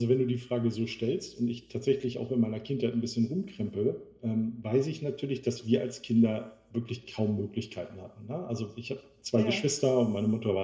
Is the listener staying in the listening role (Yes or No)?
Yes